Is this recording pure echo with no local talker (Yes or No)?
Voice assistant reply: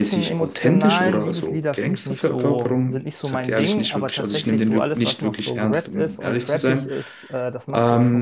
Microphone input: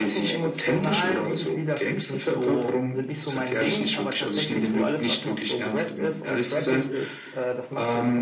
Yes